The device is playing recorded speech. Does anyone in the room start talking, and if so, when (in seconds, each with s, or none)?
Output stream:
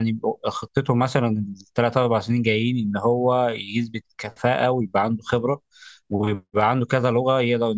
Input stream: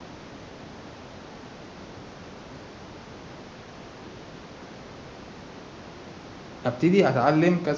6.6 s